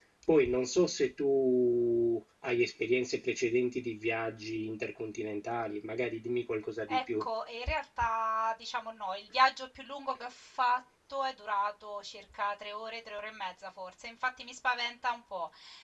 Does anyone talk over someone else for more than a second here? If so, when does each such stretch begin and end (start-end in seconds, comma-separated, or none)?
none